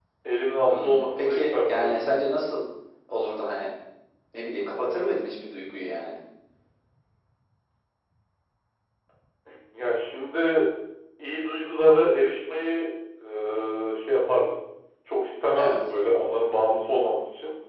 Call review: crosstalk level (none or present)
present